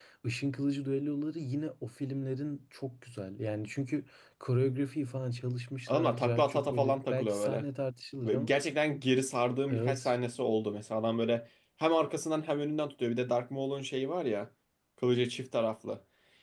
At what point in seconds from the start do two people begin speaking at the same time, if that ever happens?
6 s

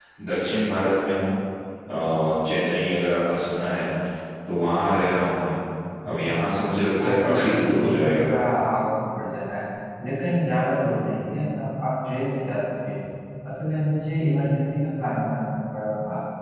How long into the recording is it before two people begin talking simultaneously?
7 s

